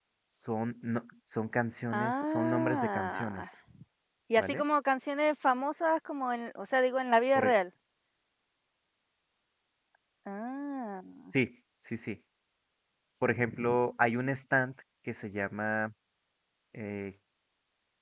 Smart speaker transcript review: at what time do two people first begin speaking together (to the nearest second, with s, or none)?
2 s